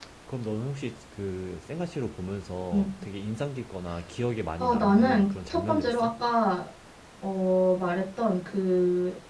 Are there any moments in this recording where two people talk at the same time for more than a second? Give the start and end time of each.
4.6-6.1

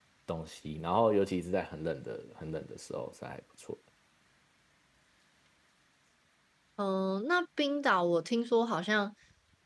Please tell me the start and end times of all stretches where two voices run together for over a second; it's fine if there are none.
none

